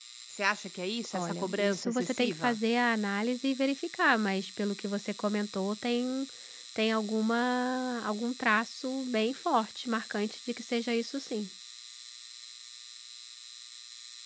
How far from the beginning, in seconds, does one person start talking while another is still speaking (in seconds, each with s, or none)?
1.1 s